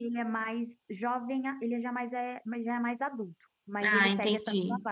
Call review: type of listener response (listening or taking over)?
listening